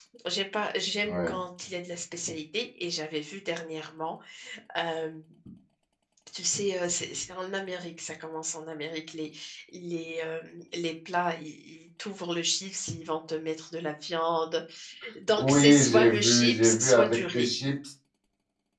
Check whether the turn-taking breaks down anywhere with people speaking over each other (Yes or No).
Yes